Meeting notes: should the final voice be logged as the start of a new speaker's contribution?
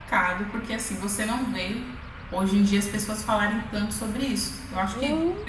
No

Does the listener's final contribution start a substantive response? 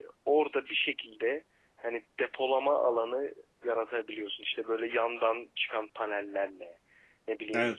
No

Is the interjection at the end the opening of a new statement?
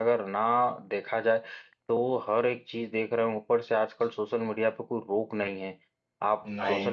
No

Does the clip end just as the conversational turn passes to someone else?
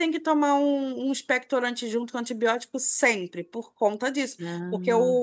No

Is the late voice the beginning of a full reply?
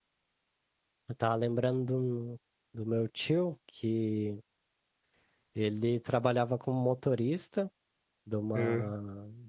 No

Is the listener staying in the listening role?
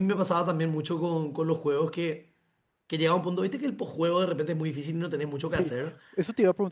No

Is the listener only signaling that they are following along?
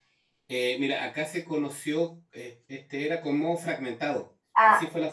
Yes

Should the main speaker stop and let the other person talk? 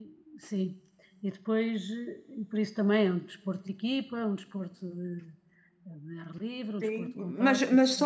Yes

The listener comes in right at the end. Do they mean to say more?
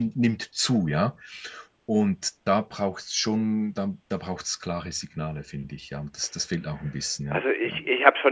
Yes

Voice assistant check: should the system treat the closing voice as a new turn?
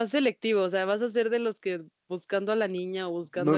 Yes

